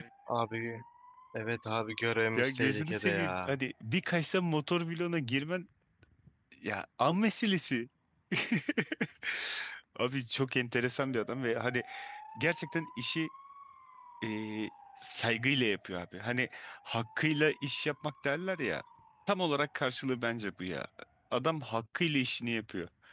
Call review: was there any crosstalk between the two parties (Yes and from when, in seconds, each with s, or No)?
Yes, from 2.4 s